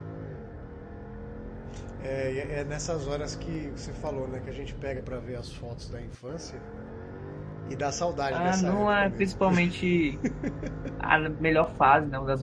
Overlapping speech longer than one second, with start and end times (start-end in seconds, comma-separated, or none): 8.3-9.6